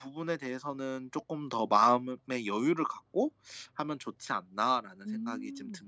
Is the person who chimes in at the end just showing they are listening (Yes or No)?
No